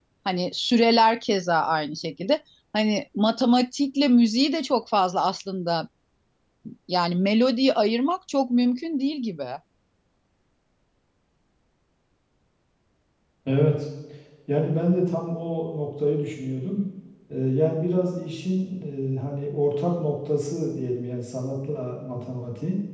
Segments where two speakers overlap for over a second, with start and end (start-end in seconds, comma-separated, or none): none